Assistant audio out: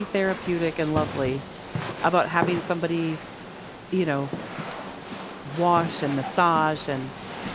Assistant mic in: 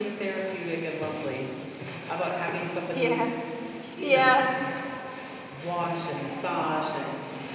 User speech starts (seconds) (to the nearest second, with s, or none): 3 s